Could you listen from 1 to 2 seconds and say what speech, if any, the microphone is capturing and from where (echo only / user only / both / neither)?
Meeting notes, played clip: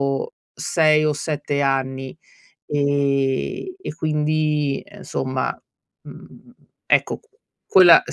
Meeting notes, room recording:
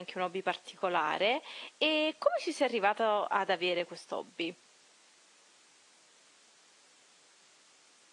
user only